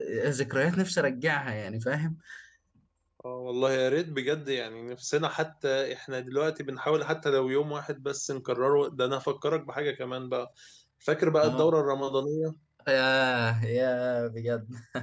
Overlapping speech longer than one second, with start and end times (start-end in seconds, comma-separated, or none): none